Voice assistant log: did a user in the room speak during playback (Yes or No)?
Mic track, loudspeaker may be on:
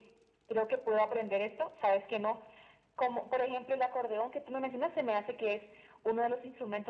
No